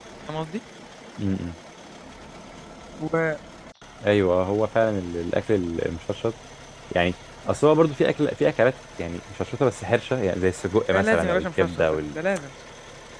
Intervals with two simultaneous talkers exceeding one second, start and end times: 11.0-12.2

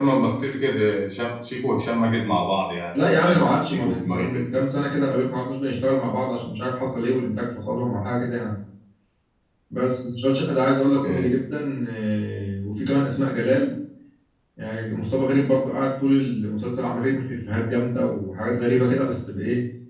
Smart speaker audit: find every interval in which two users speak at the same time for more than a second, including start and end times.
2.9-4.4

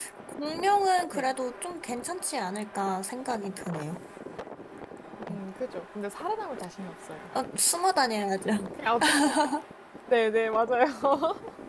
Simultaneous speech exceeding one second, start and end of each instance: none

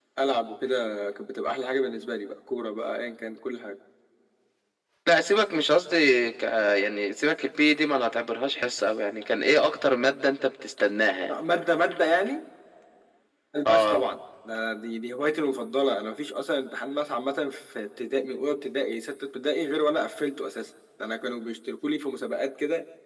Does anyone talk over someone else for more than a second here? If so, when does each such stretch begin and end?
none

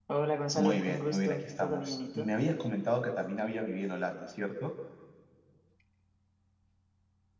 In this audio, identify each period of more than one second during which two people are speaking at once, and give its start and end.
0.6-2.3

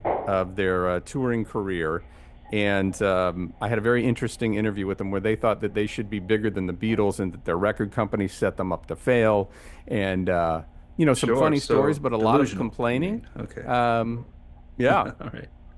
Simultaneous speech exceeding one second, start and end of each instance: 11.2-13.2

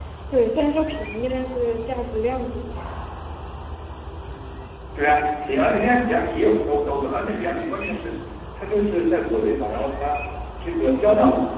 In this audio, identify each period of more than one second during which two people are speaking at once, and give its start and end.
none

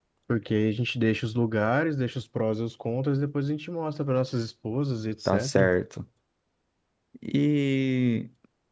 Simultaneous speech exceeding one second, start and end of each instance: none

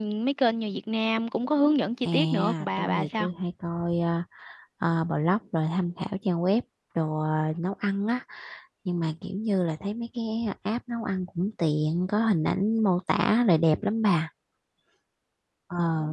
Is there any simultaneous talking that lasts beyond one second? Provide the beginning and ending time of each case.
2.0-3.3

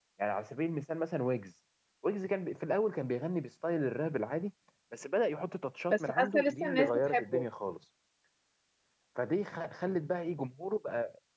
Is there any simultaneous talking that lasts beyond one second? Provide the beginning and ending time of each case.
5.9-7.4

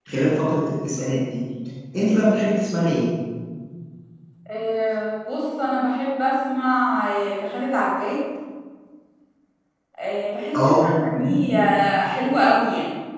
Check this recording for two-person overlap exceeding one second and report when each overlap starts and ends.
10.6-11.8

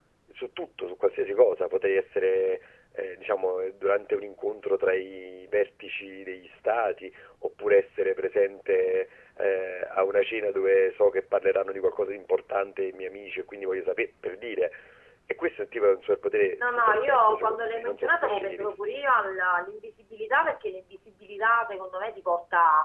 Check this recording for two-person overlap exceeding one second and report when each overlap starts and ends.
16.6-18.8

